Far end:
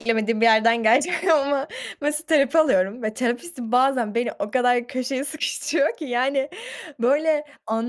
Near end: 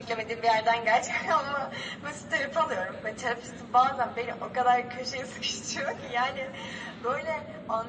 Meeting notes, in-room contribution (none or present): none